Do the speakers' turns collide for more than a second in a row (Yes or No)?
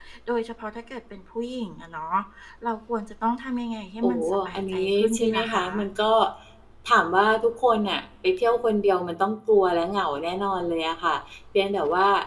Yes